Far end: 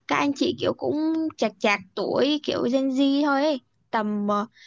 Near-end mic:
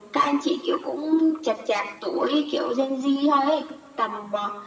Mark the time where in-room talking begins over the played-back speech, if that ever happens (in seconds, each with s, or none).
none